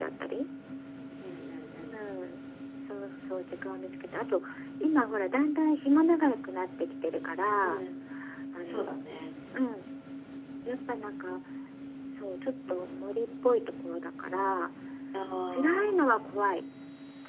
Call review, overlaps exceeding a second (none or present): none